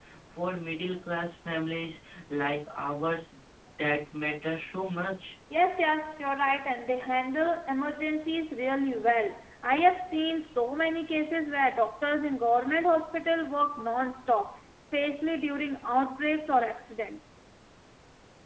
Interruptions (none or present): none